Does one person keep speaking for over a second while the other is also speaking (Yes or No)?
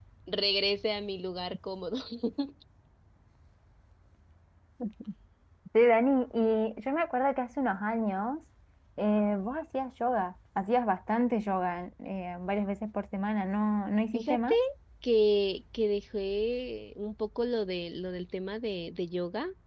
No